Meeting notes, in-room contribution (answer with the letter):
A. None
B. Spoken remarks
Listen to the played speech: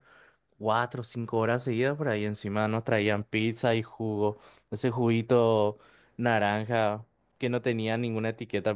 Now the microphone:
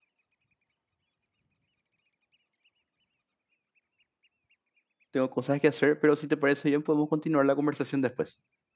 B